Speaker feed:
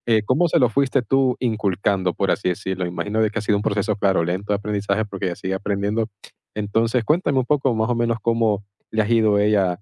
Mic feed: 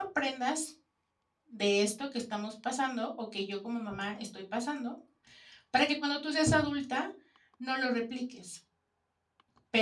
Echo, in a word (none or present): none